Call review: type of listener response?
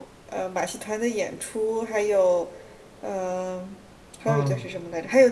listening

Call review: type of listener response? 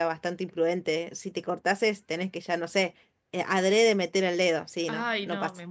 taking over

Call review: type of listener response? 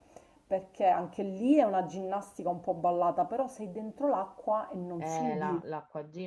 taking over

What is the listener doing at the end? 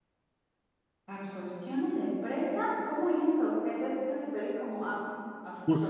taking over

